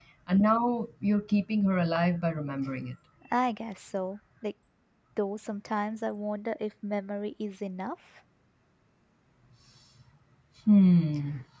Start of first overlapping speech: none

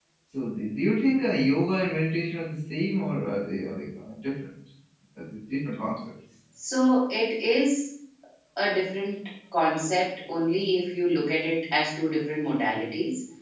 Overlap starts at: none

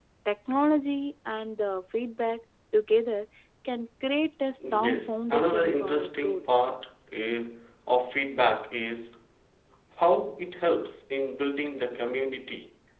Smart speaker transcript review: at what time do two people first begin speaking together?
4.6 s

